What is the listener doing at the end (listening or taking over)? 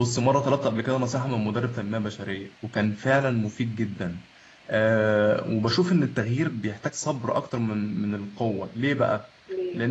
listening